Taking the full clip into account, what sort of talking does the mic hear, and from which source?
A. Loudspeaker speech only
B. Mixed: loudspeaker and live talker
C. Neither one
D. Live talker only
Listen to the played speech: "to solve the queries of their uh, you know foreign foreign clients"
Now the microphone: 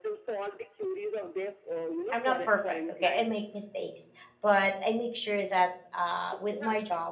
B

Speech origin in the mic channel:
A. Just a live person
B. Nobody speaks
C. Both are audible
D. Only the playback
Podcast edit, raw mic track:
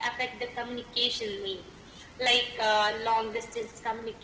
D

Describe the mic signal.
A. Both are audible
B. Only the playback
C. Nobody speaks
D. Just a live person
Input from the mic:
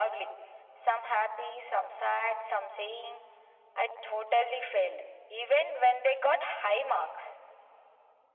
B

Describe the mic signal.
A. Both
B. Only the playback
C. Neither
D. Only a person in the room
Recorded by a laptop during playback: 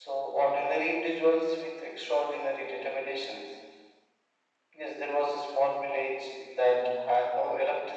B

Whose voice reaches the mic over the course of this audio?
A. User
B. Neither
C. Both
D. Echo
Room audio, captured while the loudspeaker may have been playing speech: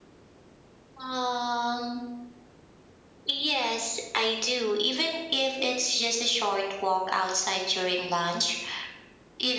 D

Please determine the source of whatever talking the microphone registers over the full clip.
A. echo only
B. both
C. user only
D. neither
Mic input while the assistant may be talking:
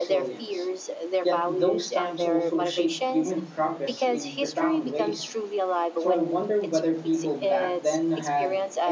B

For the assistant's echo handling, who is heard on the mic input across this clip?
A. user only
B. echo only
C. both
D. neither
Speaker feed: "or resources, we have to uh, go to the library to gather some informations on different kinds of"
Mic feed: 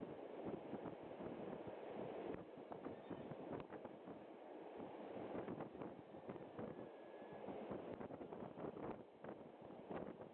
D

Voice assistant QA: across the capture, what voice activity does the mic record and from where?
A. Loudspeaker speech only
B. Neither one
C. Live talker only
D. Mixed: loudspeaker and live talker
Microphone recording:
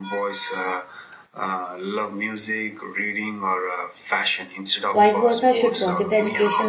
D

